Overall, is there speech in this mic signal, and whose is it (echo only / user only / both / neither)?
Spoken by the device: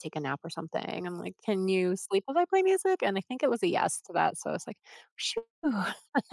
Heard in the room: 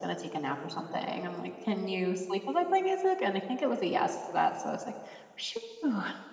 echo only